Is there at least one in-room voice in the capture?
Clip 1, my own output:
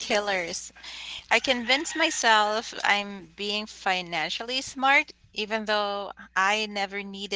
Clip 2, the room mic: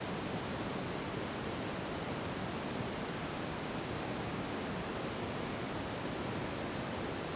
No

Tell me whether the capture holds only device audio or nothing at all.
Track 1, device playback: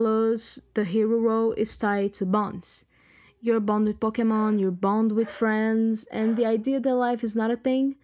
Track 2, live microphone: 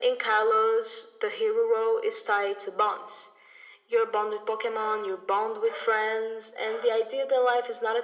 Yes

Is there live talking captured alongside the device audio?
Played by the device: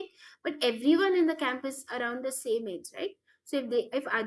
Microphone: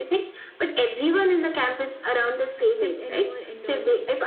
Yes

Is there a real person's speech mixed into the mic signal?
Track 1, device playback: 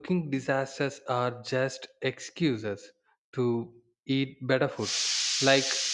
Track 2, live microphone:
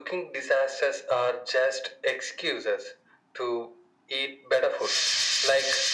No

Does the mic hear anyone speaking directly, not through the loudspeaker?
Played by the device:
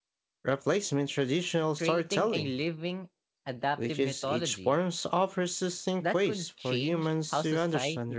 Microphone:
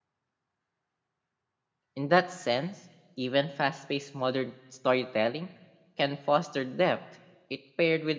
Yes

